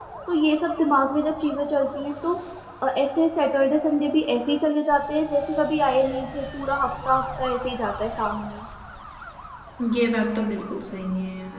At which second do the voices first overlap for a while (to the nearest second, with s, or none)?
none